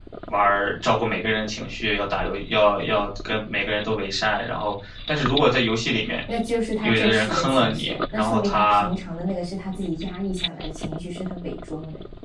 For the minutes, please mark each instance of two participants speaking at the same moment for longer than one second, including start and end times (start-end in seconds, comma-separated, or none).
6.8-8.9